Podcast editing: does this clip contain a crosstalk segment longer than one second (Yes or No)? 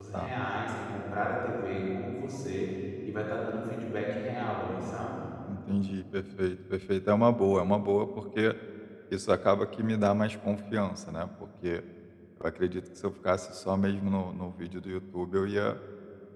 No